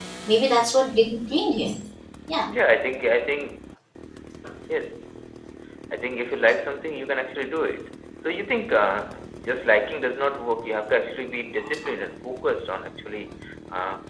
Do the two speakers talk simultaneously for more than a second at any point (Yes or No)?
No